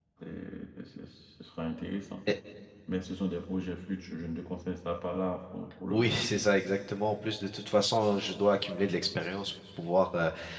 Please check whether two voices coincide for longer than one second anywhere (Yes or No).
No